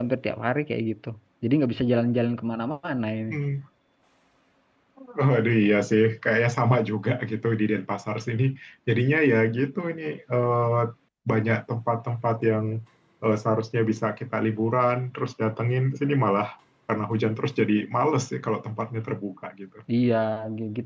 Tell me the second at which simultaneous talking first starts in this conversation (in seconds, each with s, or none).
none